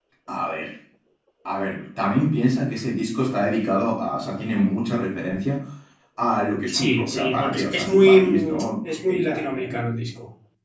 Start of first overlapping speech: 6.7 s

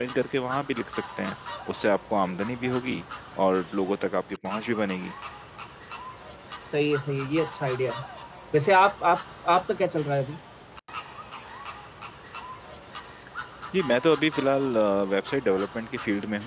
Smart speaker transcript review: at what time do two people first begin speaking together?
none

